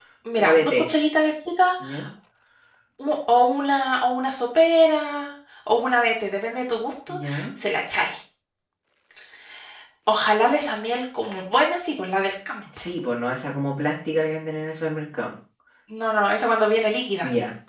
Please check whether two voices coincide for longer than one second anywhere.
No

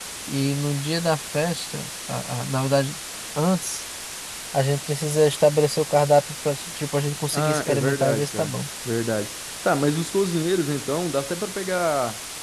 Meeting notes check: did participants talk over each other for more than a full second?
Yes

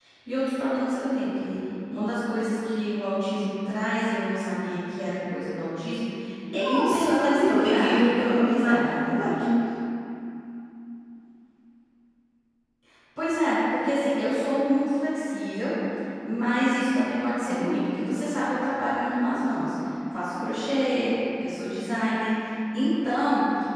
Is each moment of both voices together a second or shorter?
No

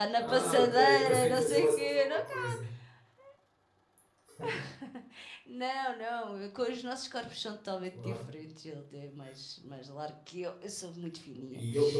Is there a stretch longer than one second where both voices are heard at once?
Yes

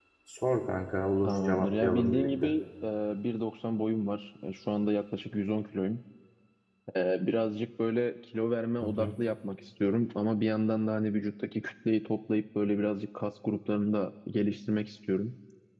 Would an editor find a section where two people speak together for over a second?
Yes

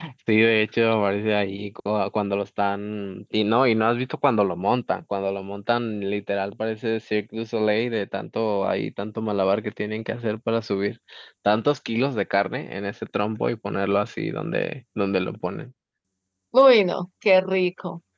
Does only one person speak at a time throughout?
Yes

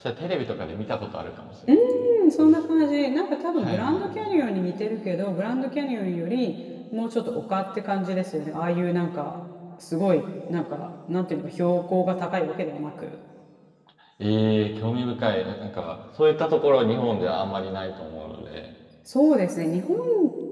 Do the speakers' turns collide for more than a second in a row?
No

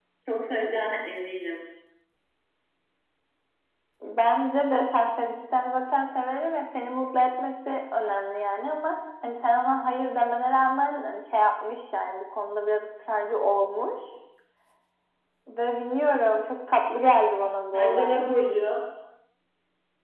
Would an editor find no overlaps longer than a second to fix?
Yes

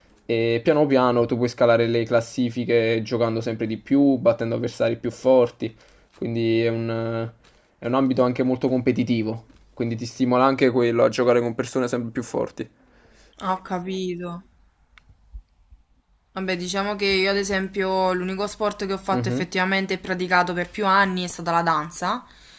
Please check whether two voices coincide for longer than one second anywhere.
No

